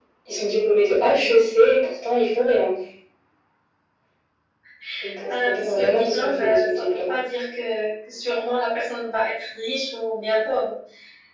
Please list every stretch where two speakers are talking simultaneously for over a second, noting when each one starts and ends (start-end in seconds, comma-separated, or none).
5.3-7.1